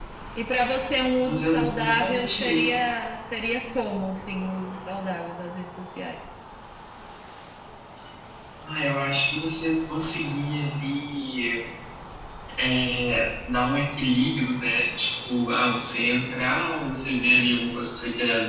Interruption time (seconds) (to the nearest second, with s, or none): 1 s